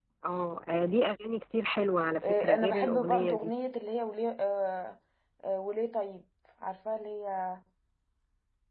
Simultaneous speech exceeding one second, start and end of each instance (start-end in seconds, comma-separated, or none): 2.2-3.5